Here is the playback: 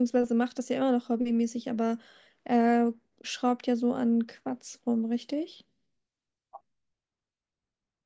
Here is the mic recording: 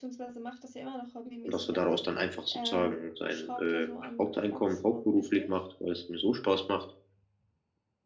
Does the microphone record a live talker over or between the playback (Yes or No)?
Yes